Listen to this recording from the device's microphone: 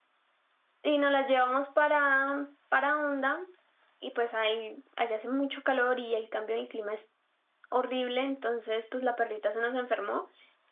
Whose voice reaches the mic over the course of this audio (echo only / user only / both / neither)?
user only